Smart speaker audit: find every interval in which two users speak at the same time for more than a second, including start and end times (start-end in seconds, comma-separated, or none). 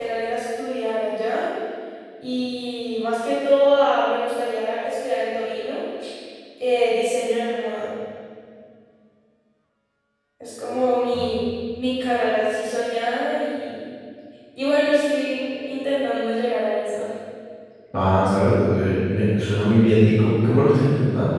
none